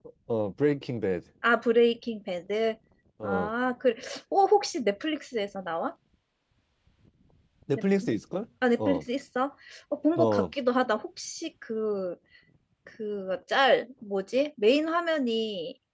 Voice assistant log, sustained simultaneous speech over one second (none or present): none